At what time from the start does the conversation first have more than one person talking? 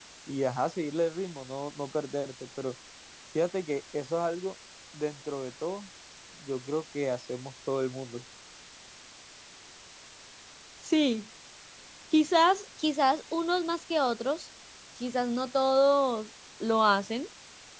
none

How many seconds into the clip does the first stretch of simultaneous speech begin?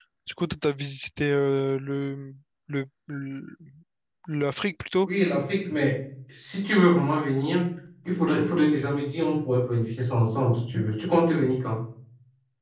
none

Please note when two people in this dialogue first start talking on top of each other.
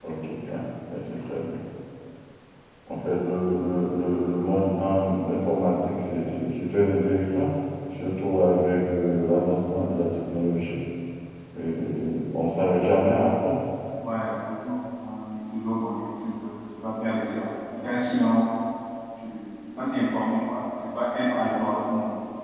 none

